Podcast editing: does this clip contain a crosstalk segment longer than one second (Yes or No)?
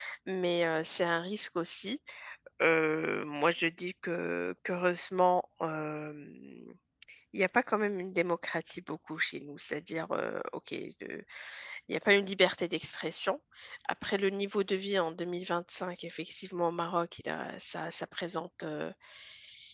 No